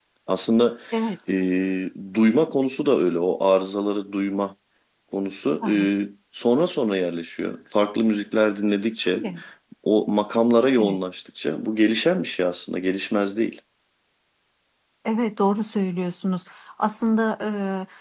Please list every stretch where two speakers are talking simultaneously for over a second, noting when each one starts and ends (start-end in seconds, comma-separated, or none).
none